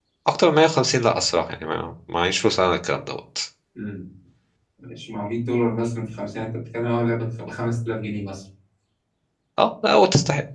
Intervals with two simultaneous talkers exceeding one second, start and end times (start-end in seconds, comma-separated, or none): none